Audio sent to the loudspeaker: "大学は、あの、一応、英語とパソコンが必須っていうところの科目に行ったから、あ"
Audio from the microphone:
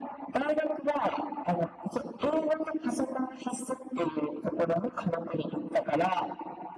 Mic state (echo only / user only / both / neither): echo only